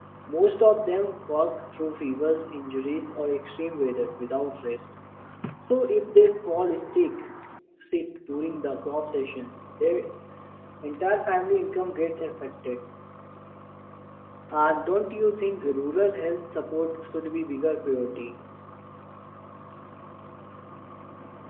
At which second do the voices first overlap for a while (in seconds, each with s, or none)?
none